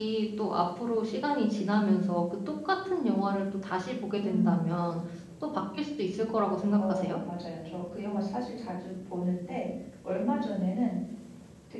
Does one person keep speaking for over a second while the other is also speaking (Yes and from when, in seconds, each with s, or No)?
No